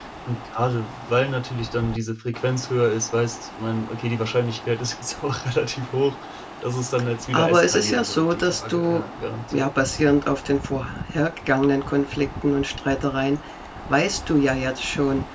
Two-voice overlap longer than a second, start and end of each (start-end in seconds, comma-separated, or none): 7.3-9.0